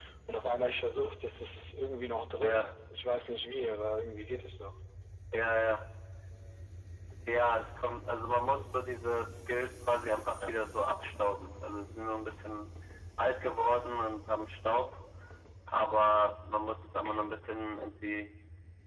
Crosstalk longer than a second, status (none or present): none